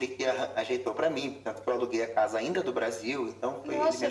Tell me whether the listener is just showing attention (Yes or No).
No